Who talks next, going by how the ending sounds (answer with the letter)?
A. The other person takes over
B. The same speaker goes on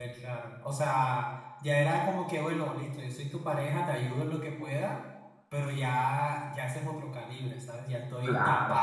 B